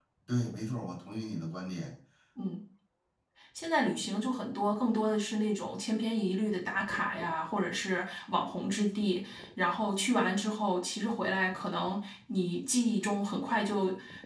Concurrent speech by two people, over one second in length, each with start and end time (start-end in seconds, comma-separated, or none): none